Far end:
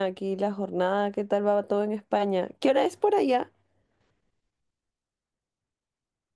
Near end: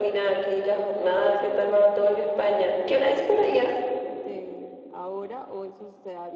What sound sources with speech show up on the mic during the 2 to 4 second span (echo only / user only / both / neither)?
both